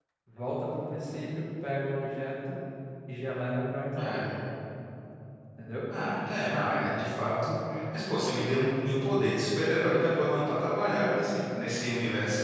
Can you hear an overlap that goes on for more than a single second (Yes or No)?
No